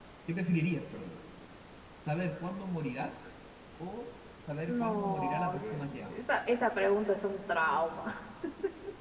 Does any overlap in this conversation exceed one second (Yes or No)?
Yes